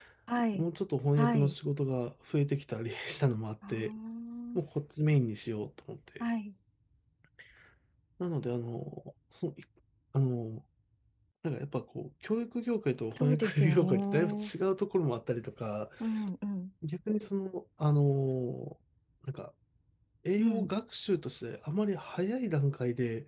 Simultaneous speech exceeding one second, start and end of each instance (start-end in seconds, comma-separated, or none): 13.2-14.5